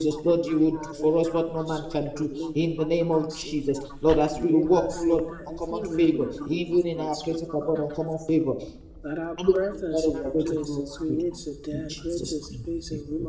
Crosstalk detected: Yes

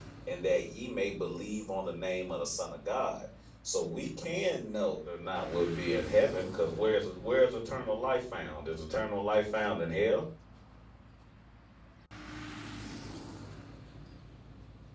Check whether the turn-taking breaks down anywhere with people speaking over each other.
No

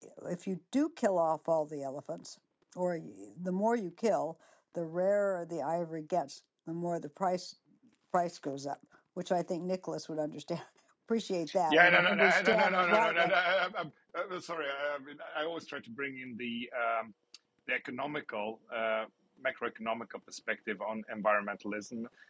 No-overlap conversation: No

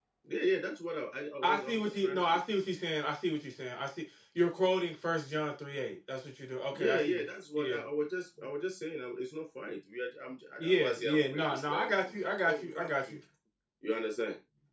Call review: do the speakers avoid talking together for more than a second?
No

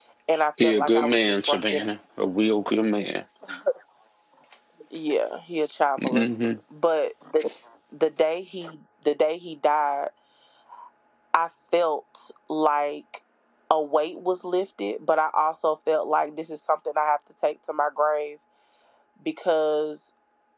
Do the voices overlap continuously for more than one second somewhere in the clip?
Yes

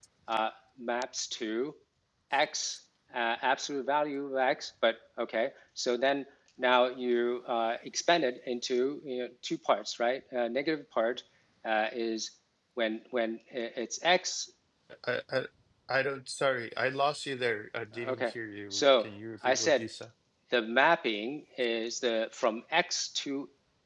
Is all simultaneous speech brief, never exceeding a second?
Yes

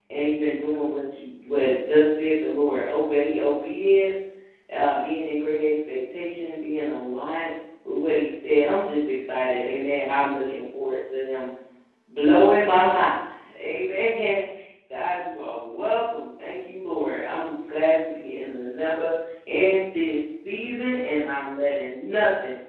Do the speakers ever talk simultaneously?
No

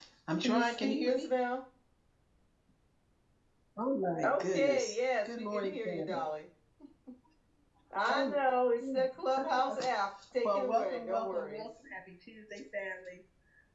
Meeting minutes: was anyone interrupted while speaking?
Yes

